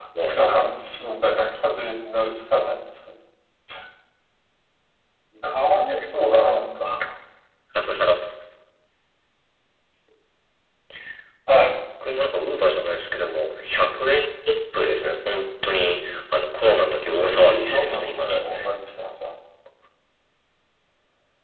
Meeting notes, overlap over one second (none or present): present